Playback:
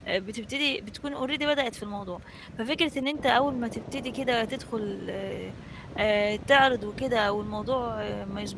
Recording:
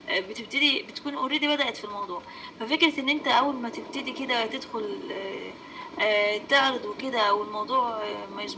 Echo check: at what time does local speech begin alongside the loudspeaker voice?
none

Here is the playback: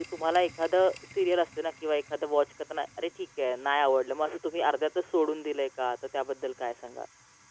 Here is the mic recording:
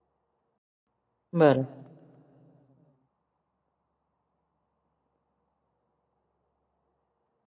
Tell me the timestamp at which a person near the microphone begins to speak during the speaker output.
1.3 s

